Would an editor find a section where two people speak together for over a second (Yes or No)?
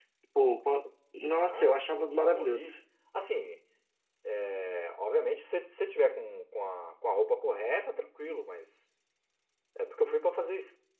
Yes